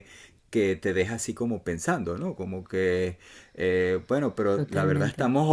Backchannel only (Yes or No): Yes